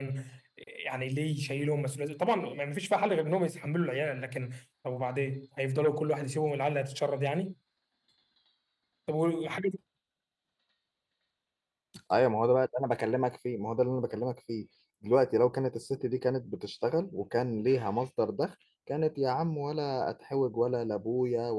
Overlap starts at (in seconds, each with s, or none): none